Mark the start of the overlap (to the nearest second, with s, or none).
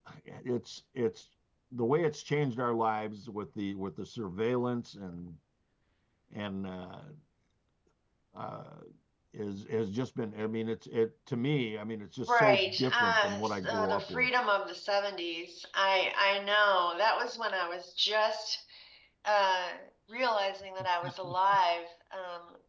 12 s